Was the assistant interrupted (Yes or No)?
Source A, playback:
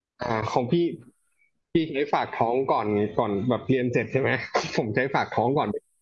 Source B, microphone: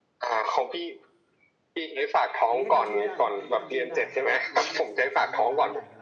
Yes